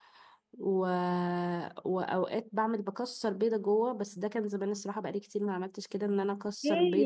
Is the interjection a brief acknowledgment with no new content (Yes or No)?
No